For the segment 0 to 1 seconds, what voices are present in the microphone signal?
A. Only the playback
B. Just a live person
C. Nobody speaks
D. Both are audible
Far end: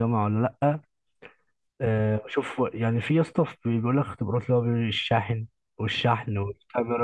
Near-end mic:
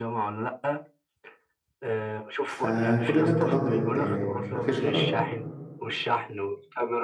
A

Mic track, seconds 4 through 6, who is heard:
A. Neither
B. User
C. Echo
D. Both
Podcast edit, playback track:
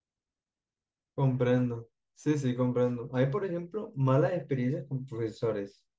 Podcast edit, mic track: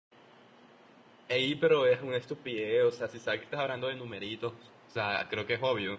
B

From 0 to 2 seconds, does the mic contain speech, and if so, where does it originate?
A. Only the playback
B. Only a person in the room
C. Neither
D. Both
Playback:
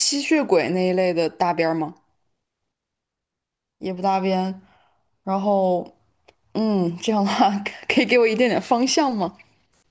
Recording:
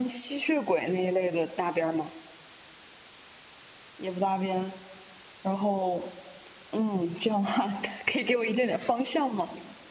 A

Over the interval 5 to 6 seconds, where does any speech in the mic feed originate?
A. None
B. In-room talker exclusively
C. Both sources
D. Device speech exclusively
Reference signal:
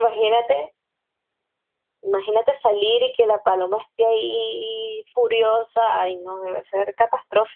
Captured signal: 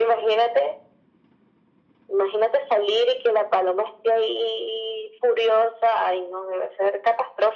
D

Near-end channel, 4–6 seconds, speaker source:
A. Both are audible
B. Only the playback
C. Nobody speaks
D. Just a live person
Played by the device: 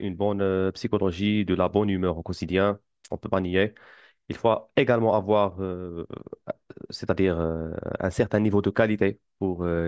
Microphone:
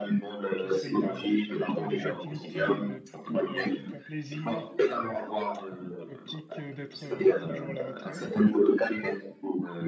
A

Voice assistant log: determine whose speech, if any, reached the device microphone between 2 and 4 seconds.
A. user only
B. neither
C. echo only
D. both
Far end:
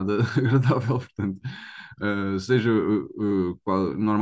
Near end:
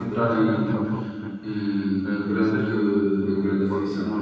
D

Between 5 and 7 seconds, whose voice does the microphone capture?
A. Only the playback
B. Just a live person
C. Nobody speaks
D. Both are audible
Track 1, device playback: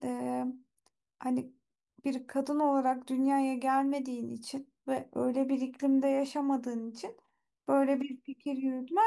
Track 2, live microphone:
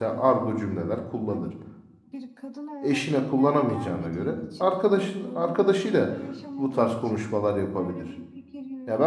D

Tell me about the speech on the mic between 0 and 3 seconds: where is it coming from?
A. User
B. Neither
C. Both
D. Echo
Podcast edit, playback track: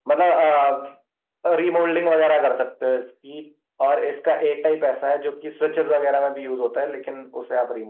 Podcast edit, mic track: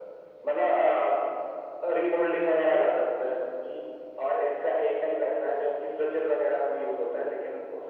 D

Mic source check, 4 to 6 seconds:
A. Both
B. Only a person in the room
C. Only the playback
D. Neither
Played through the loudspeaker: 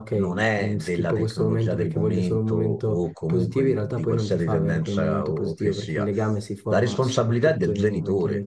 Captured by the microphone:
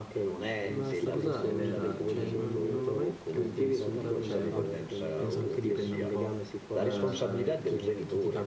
A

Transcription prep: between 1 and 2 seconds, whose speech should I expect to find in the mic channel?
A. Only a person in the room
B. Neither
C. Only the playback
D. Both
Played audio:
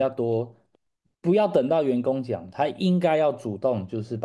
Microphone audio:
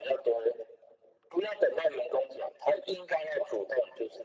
C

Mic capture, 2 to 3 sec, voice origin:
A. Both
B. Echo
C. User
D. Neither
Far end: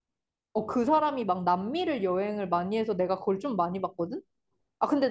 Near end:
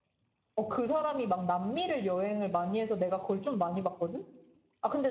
B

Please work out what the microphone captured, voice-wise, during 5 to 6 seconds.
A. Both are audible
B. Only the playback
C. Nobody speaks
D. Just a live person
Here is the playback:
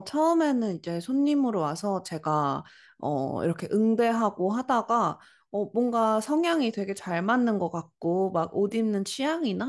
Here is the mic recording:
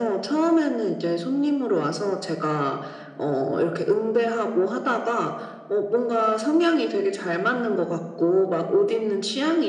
B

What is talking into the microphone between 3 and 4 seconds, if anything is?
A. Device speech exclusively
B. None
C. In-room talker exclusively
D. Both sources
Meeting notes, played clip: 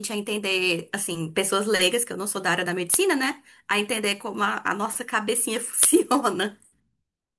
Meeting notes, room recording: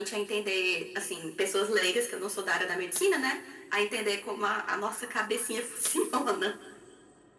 A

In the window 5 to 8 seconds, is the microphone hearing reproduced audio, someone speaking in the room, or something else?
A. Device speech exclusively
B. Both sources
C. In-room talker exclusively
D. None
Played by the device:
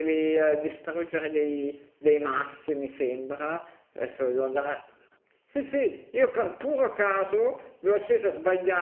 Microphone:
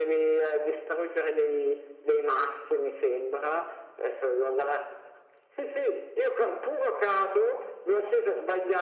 A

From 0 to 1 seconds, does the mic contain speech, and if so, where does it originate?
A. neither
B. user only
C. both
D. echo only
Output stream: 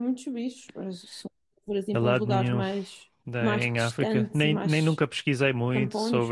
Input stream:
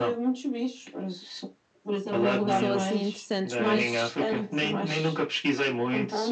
D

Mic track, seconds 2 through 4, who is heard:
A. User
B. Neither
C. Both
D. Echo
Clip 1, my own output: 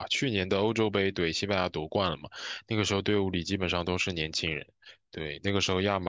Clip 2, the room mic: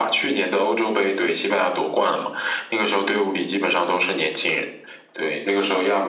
D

